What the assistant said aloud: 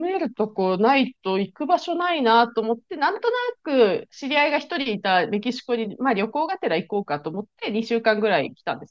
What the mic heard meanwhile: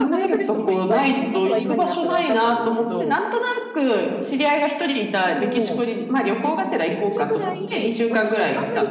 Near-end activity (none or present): present